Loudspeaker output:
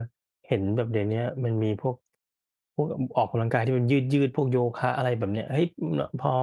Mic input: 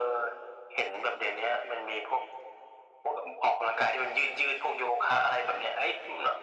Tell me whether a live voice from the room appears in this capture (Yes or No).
No